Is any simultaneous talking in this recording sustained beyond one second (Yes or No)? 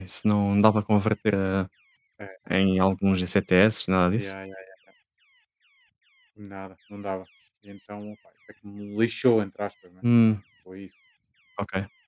No